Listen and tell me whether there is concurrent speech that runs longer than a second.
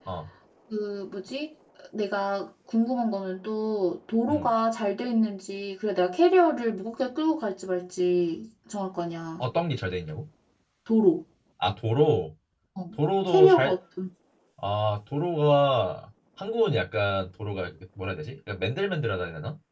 No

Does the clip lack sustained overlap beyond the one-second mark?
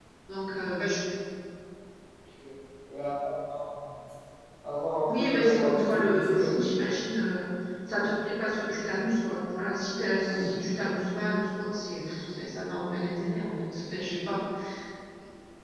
No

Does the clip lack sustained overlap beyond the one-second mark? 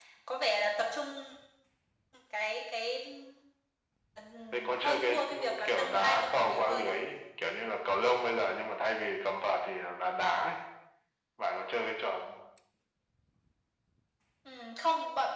No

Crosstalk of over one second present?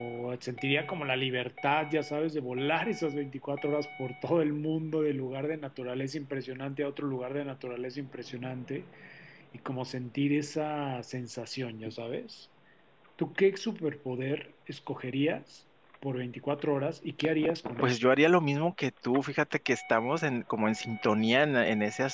No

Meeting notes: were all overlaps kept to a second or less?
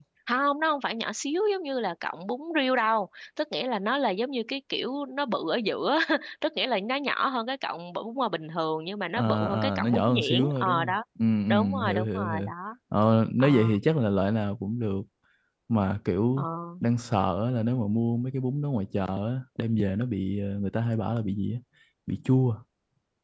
No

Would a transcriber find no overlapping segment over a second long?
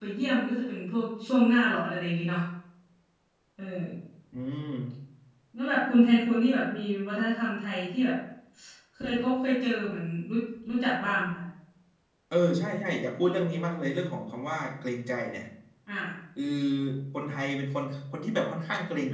Yes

